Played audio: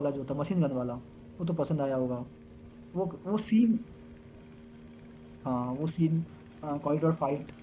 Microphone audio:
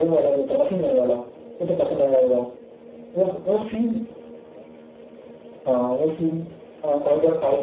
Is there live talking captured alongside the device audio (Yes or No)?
No